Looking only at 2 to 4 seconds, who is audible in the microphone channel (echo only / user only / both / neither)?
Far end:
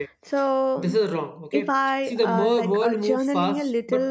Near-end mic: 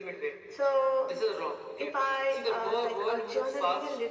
echo only